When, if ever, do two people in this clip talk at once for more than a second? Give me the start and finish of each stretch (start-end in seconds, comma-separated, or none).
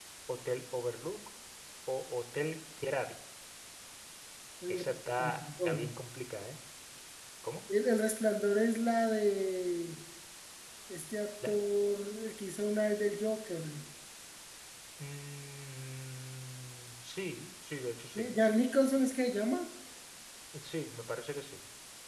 4.7-5.9